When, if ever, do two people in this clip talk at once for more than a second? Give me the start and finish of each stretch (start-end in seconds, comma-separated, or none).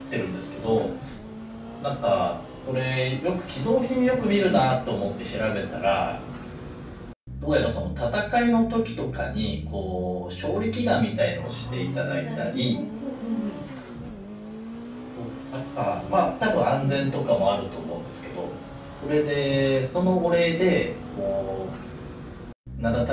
11.4-12.8